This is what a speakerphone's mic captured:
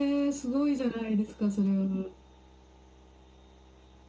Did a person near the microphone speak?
No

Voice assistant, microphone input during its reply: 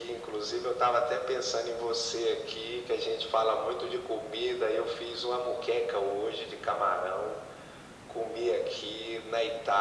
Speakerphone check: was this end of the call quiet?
Yes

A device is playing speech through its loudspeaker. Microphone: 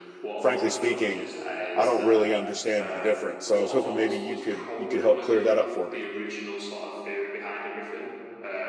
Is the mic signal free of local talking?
No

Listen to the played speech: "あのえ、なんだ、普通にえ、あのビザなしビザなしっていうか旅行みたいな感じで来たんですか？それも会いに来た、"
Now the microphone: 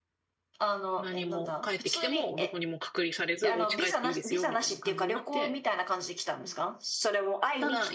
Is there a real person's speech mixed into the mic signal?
Yes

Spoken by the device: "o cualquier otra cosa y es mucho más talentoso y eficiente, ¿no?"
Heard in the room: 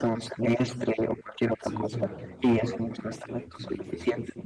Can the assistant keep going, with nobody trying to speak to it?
No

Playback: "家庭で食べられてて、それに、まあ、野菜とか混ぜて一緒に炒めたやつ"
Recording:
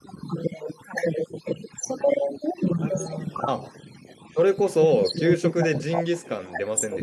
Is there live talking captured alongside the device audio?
Yes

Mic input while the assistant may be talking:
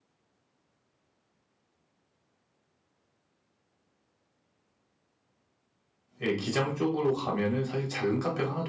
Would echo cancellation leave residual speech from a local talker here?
Yes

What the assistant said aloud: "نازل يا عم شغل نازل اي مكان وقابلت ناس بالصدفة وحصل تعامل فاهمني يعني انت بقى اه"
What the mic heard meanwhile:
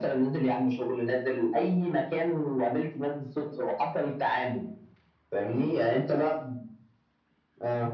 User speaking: No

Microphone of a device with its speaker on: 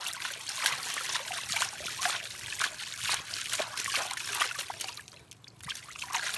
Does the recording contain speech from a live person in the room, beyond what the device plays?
No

